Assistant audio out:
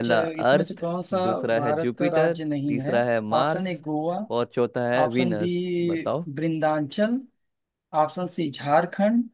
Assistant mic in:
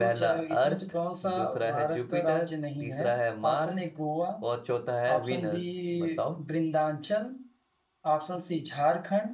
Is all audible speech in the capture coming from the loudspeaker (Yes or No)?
Yes